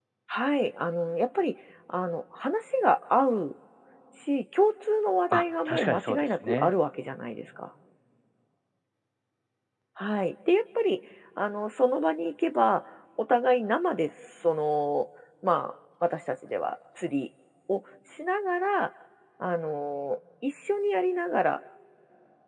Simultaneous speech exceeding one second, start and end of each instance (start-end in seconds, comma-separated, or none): 5.3-6.7